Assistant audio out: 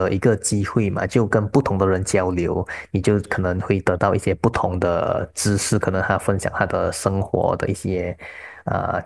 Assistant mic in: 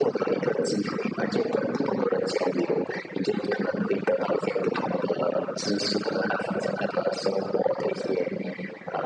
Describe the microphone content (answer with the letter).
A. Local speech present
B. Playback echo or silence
B